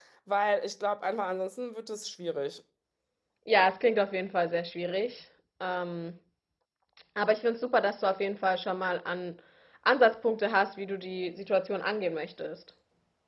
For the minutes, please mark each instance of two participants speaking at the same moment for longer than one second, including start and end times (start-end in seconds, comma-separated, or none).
none